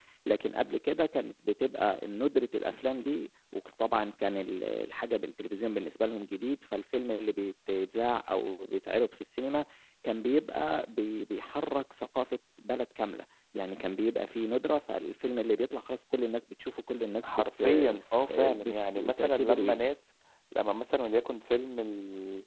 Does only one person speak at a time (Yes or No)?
No